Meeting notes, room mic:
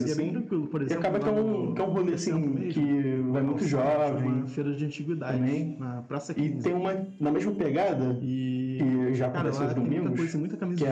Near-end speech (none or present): present